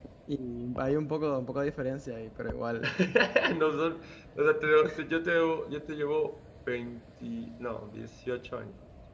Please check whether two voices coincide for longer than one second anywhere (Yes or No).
No